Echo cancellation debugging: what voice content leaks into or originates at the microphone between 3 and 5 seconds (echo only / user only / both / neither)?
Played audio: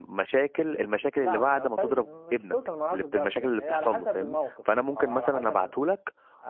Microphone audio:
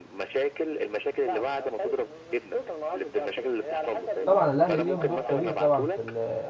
both